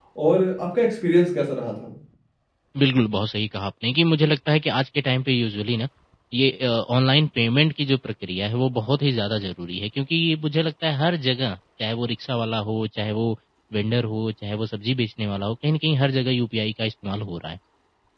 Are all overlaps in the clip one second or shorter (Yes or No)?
Yes